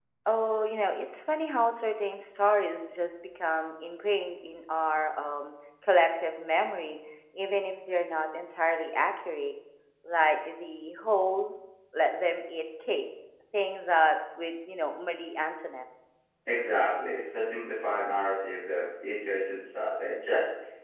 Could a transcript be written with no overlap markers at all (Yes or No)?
Yes